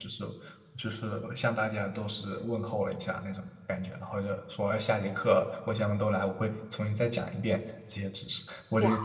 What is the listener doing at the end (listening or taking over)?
taking over